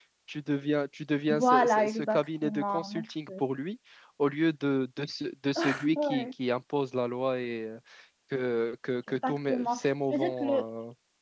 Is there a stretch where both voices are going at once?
Yes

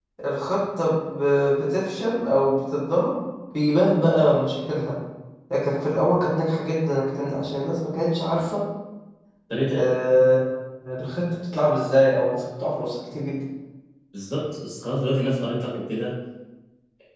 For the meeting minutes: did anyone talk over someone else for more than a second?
No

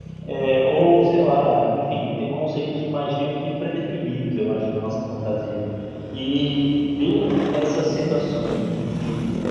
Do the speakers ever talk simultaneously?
No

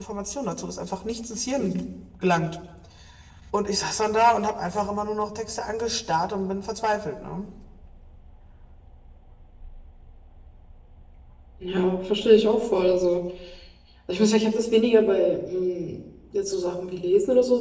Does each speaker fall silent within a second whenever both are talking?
Yes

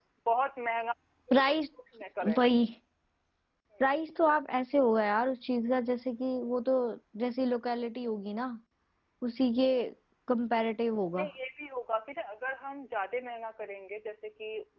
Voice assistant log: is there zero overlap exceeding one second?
Yes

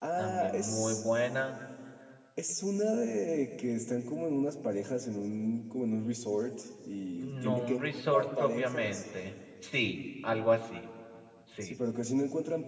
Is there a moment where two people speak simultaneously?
Yes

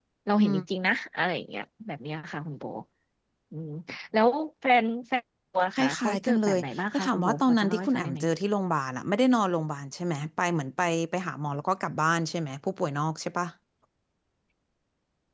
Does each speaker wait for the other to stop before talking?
No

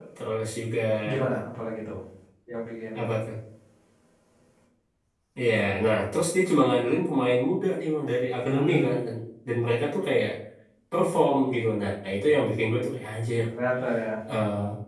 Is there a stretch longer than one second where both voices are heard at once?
No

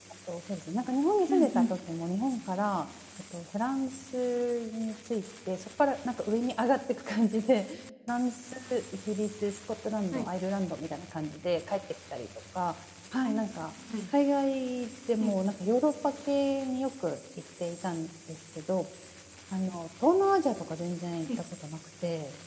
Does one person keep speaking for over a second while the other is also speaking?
No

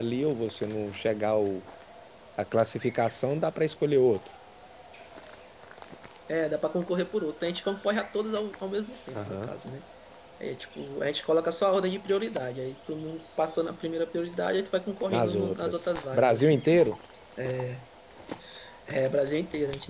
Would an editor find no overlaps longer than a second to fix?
No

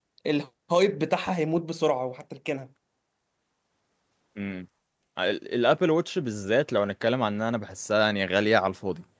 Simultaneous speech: No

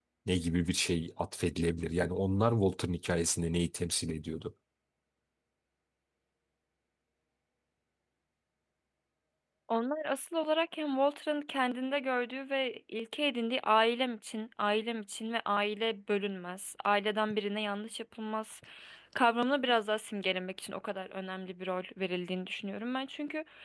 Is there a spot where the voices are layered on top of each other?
No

